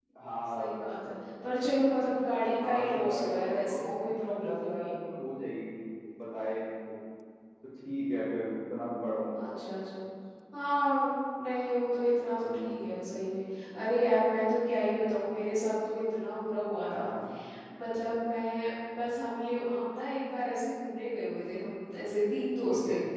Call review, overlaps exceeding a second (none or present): present